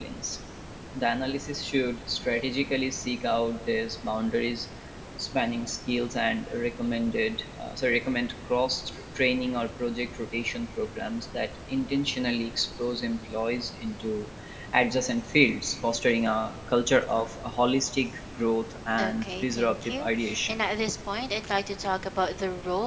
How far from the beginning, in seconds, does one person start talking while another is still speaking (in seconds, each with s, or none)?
19.0 s